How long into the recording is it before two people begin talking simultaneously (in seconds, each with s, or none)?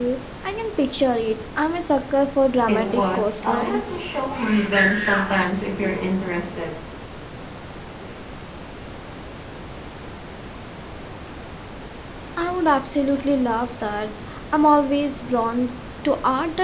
2.7 s